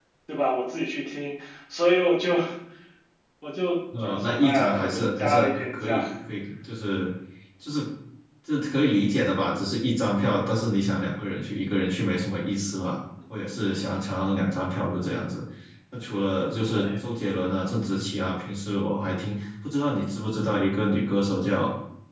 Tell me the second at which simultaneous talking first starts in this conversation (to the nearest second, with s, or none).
4 s